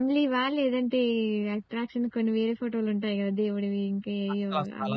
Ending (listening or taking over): taking over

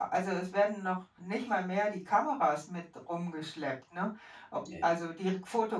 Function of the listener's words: listening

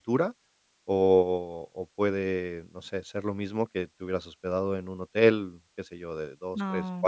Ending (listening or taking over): listening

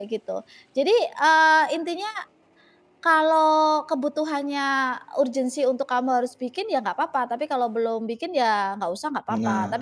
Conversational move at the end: listening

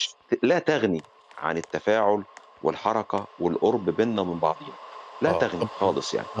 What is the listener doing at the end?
taking over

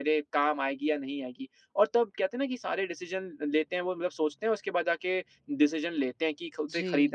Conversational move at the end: listening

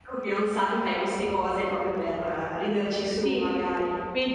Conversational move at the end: taking over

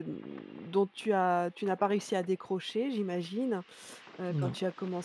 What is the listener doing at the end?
listening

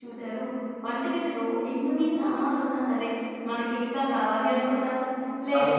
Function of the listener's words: listening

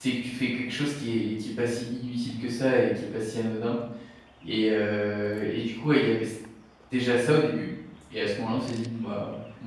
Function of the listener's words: listening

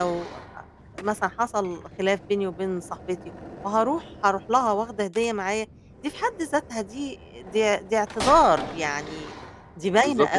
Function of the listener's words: taking over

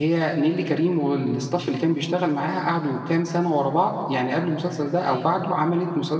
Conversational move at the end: listening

